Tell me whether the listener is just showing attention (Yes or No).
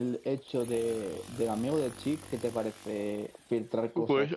No